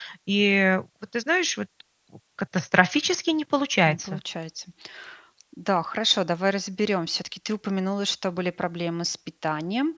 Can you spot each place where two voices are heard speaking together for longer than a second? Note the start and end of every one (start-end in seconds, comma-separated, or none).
none